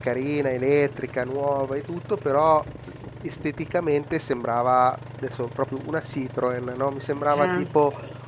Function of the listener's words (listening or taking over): listening